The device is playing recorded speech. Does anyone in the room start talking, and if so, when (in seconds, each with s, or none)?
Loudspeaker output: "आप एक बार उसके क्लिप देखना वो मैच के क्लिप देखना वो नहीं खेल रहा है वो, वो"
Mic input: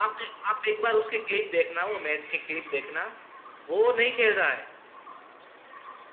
none